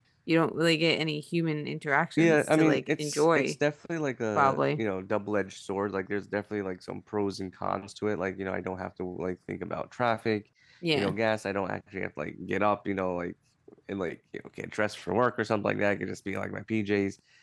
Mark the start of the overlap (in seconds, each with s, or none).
2.2 s